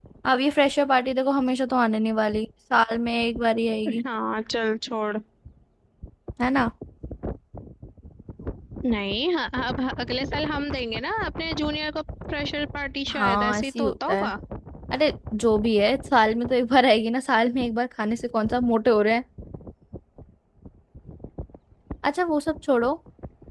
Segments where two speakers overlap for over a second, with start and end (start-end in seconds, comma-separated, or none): 13.1-14.3